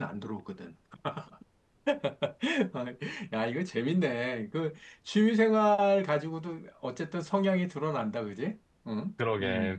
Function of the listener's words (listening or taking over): taking over